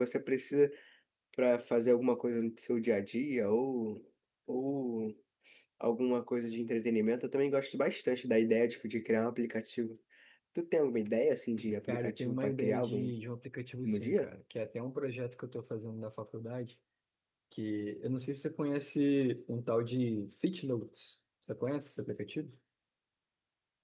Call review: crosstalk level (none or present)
present